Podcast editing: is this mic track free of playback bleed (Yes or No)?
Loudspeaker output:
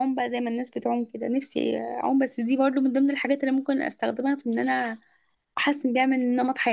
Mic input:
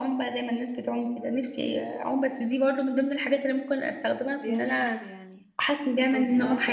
No